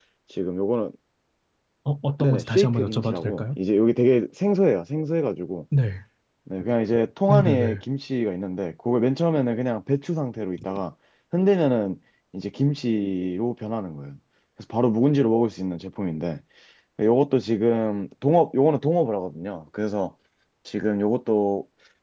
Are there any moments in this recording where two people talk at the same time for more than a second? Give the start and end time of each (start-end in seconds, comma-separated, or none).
2.2-3.6